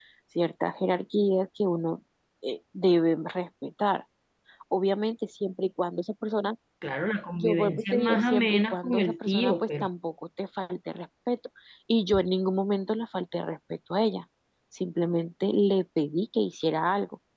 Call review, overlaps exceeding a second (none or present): present